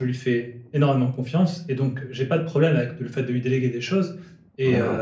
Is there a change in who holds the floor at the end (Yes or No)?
No